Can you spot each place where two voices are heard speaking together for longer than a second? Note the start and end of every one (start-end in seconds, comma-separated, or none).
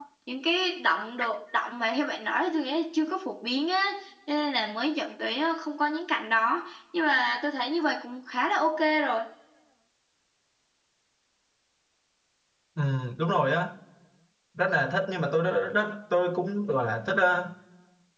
none